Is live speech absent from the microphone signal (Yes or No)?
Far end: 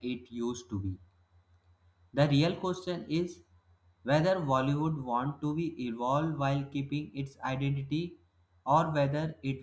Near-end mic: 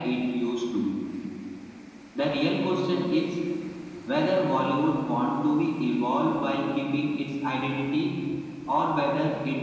Yes